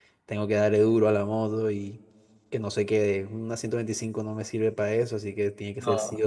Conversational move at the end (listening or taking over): listening